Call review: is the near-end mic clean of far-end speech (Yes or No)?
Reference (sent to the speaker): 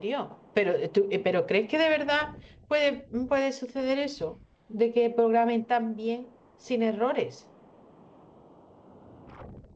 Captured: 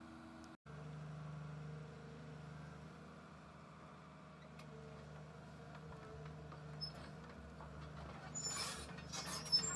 Yes